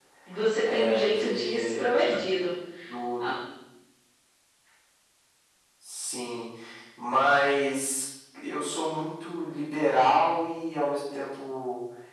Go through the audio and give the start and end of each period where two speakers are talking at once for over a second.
0.6-2.0

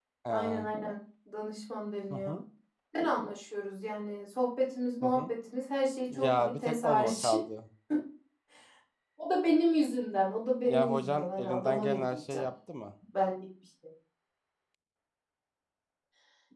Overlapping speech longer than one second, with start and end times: 6.1-7.3, 10.7-12.5

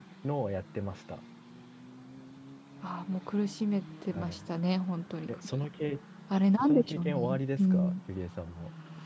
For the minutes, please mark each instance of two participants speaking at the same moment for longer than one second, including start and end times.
6.7-7.9

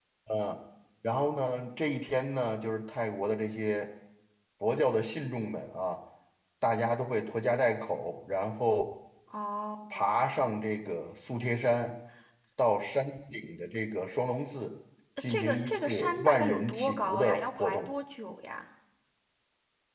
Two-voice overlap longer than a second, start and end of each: 15.3-17.8

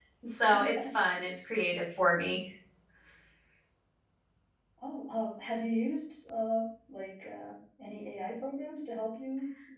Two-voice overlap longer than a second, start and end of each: none

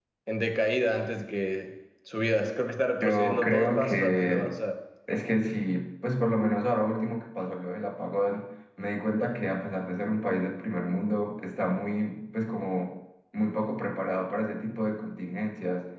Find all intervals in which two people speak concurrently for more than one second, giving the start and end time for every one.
3.0-4.5

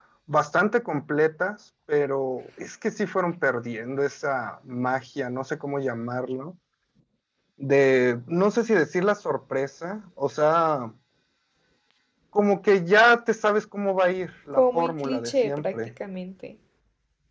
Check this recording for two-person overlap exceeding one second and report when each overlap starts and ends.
14.5-15.9

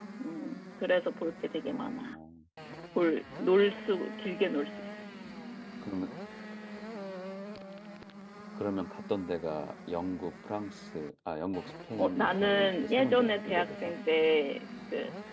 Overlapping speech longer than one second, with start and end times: 12.0-13.8

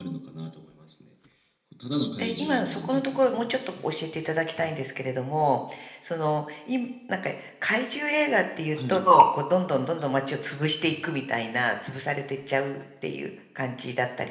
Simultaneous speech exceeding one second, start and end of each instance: 2.2-3.9

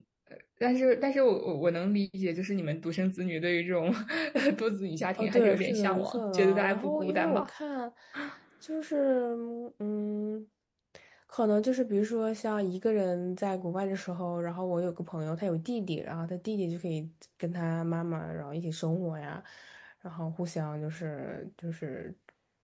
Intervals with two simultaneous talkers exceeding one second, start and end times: 5.2-7.5

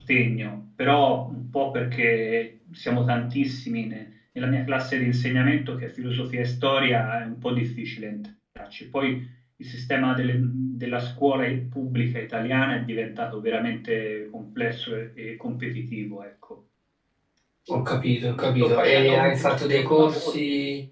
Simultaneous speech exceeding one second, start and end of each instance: 18.2-20.4

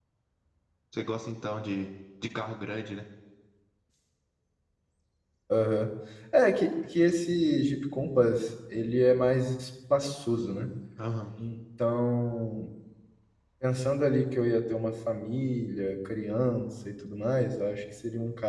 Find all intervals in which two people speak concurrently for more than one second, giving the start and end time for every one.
none

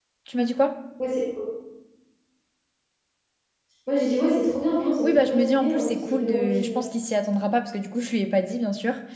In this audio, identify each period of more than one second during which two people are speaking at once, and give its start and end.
5.0-6.9

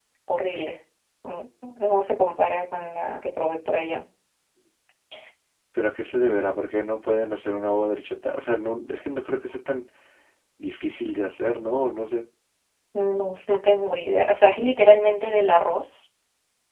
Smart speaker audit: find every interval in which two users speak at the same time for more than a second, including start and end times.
none

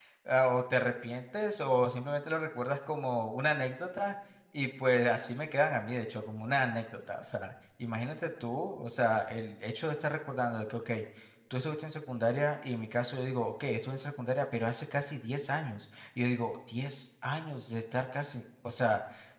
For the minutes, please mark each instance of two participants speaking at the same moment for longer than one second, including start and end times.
none

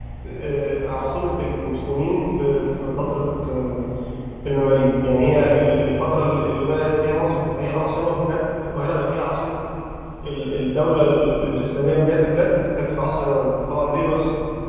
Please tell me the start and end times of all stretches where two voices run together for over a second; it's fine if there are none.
none

